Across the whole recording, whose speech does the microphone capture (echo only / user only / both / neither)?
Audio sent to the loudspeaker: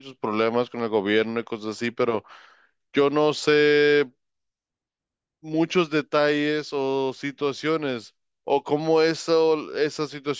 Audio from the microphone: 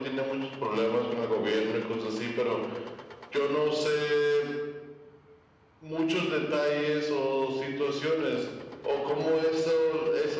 echo only